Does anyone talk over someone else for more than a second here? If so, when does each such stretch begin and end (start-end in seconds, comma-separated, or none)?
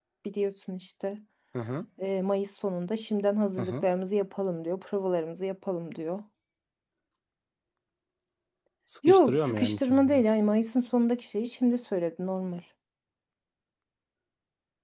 9.1-10.3